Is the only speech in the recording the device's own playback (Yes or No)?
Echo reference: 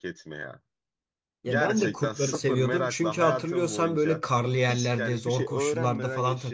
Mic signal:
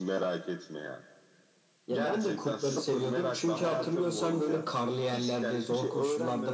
No